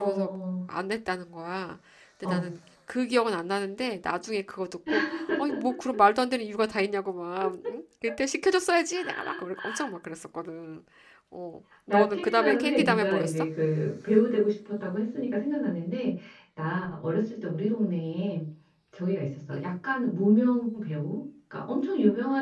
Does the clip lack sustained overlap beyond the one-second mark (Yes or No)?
No